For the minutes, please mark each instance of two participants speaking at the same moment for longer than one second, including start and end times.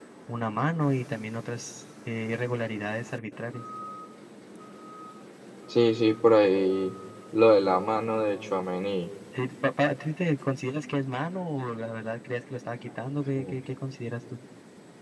none

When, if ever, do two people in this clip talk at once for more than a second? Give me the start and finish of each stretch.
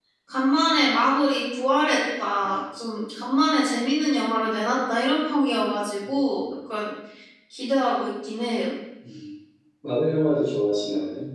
none

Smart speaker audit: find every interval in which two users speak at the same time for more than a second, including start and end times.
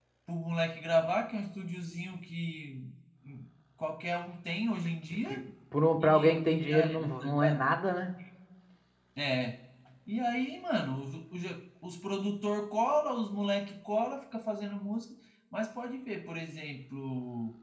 6.0-7.7

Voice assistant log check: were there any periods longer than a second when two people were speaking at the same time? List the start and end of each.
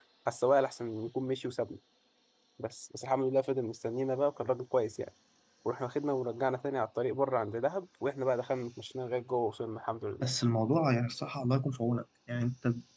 none

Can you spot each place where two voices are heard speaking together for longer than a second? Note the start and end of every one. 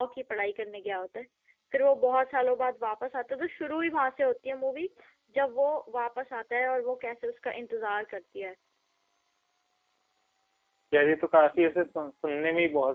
none

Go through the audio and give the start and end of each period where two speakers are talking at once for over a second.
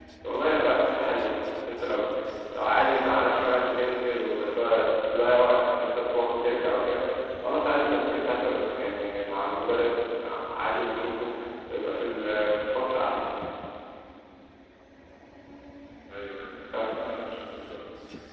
none

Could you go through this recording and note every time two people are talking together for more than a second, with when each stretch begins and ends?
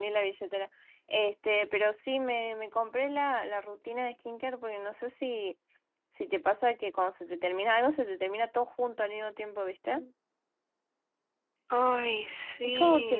none

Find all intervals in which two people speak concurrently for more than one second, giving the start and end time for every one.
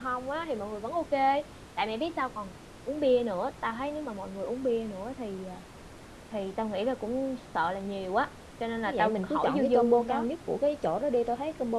8.8-10.2

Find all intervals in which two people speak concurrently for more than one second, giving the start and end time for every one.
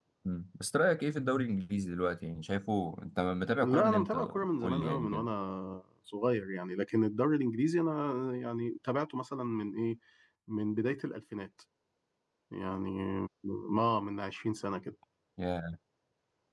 3.6-5.3

